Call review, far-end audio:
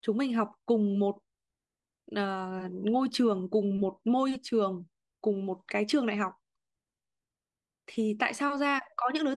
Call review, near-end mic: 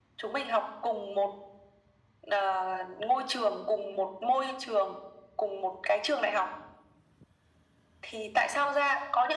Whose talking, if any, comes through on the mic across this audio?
echo only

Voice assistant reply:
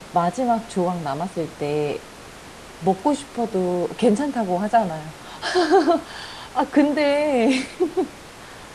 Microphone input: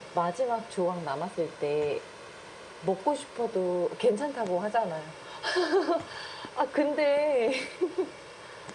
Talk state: echo only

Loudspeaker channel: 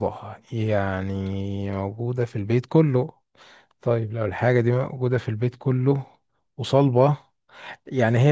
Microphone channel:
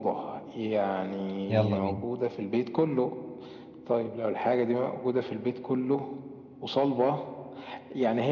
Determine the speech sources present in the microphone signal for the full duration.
both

